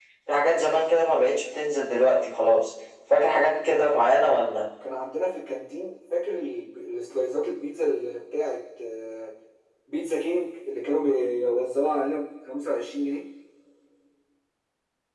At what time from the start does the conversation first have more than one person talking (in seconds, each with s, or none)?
none